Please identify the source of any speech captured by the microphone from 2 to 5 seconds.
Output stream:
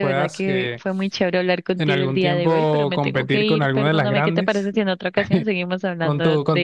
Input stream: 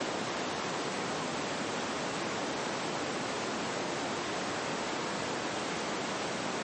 neither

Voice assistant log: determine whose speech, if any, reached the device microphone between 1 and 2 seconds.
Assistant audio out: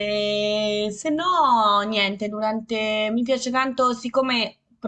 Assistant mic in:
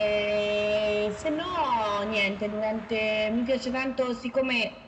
echo only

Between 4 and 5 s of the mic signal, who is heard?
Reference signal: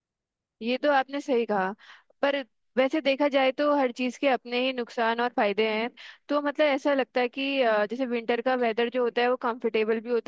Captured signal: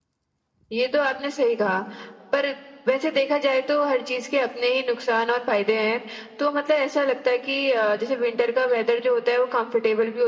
echo only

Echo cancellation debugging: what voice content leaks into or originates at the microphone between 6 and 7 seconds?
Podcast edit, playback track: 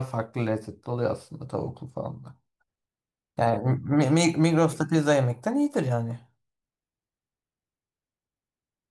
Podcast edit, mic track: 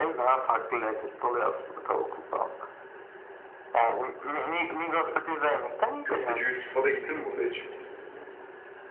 both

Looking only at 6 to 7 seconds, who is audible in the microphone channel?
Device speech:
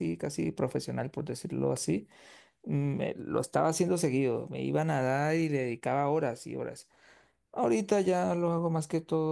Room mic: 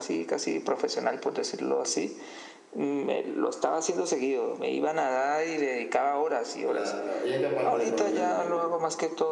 both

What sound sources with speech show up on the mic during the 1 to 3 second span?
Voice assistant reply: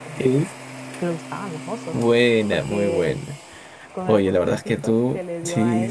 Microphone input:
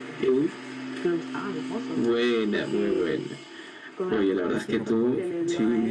echo only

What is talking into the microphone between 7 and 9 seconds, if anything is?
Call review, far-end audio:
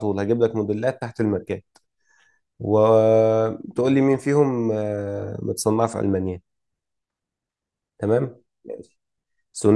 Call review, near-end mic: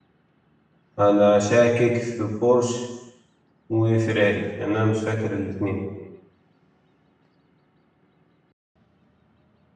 neither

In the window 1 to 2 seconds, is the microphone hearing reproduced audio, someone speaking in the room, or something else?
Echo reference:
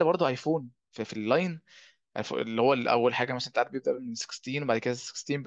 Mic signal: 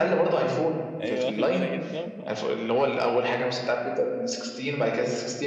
both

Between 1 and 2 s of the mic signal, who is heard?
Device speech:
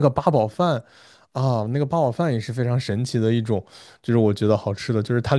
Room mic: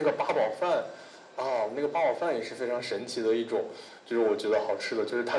echo only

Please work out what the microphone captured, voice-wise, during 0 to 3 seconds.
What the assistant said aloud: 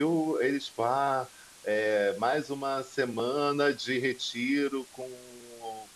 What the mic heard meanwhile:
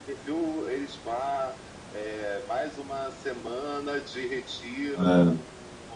echo only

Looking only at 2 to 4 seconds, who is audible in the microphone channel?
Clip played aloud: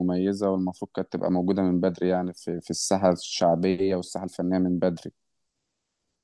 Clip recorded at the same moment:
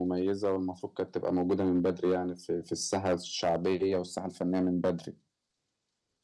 echo only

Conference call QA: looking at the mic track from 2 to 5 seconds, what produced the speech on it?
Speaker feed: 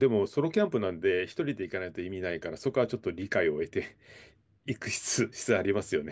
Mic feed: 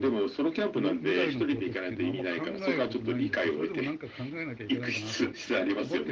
both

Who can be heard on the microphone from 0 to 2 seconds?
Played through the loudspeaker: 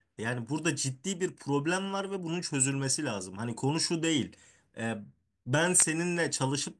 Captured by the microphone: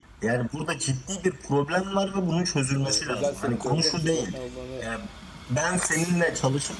echo only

